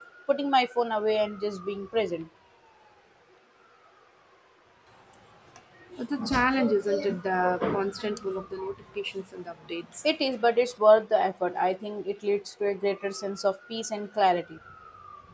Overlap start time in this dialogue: none

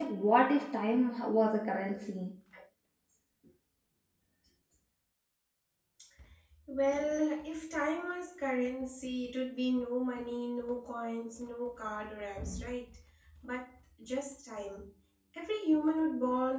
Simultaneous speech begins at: none

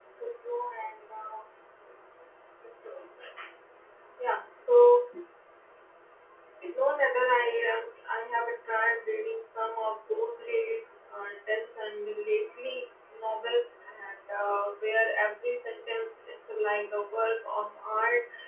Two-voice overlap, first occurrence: none

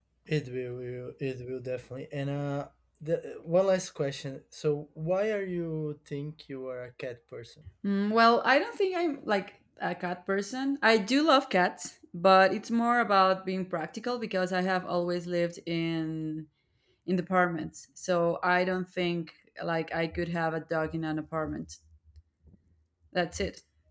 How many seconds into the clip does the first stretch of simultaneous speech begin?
none

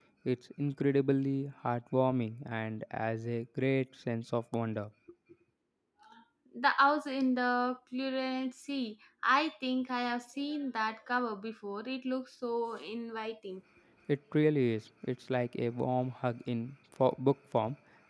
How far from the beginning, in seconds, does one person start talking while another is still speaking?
none

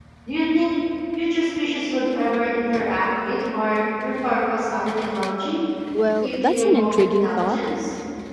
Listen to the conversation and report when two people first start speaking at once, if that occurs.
6.2 s

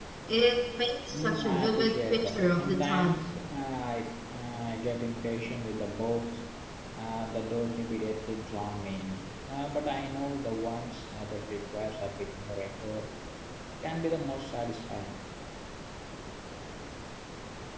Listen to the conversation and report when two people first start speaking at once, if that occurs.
1.1 s

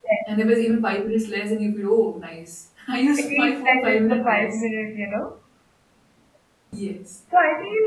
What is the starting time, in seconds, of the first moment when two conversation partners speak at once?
3.2 s

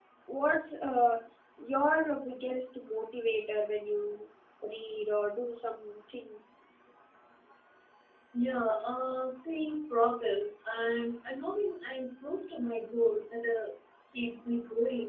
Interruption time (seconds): none

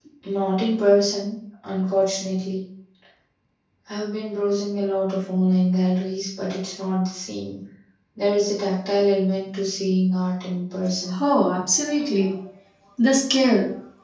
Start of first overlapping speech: none

